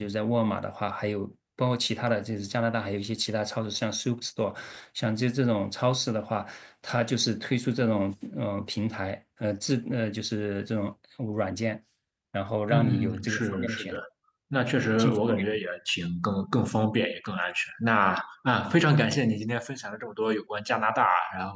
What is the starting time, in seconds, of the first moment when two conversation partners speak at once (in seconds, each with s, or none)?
12.7 s